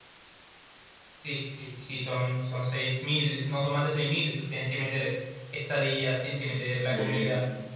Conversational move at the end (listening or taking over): listening